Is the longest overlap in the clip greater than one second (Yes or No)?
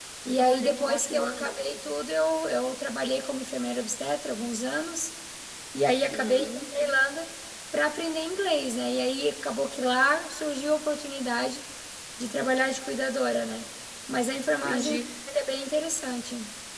Yes